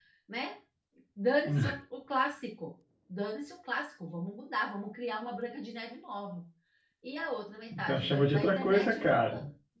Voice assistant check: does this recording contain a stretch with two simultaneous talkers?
Yes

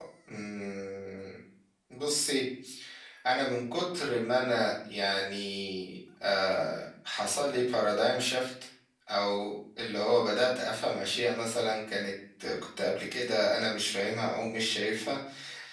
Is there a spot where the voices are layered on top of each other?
No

